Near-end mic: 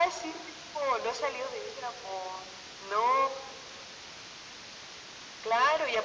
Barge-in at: none

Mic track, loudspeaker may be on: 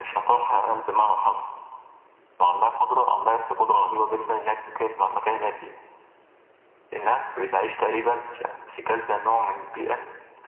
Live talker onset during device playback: none

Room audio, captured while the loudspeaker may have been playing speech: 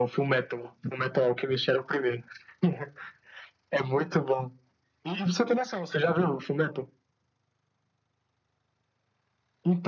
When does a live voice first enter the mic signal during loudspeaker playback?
none

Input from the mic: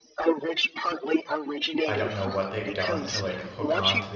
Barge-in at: 1.8 s

